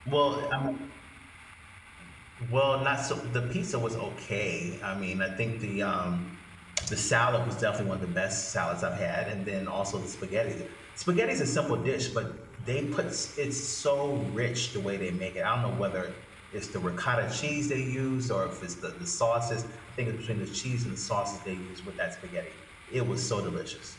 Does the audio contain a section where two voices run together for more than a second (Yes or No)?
No